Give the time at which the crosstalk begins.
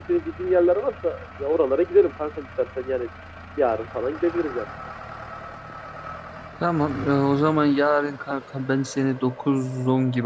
none

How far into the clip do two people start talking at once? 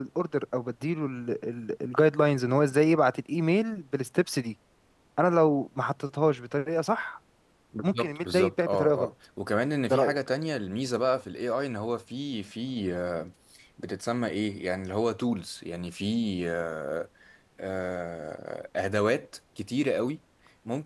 7.8 s

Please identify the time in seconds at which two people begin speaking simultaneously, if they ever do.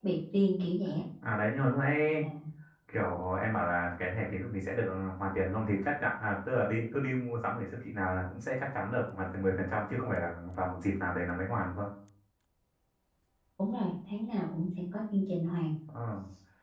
none

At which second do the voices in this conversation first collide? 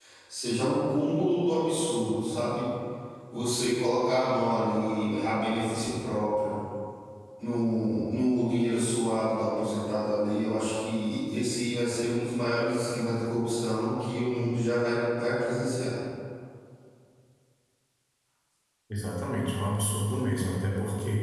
none

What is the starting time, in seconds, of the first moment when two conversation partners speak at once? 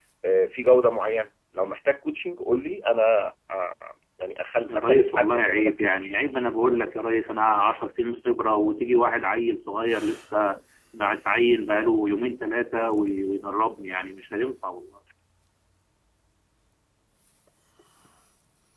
4.7 s

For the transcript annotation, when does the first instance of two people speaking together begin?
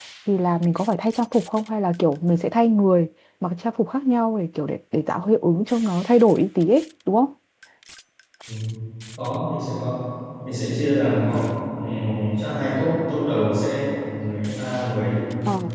none

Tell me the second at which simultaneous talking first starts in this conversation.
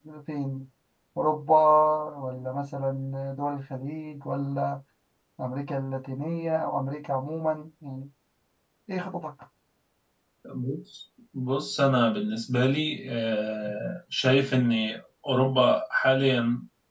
none

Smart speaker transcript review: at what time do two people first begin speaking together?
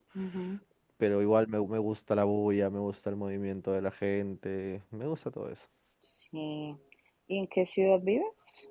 none

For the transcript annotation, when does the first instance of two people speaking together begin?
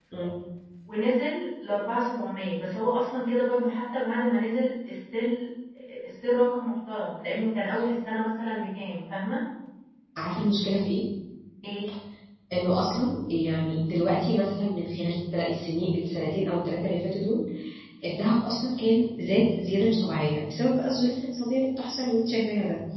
none

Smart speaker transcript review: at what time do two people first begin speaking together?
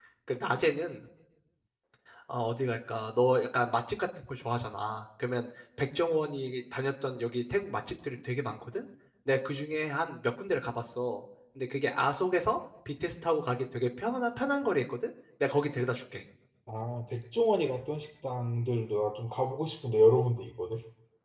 none

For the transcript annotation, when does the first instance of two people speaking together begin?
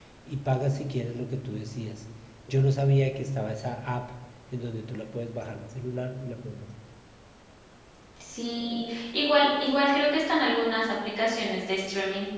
none

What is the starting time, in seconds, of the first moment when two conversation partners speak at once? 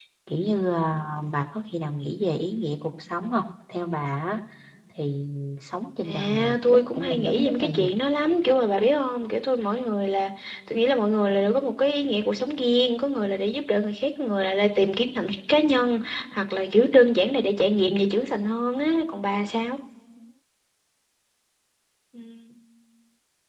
6.0 s

